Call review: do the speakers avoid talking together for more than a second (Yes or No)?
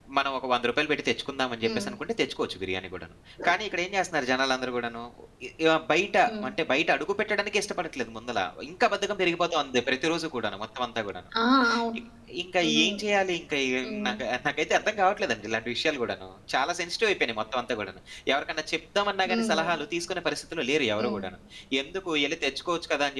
Yes